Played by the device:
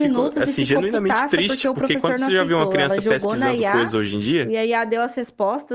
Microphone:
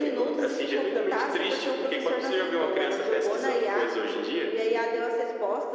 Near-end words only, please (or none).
none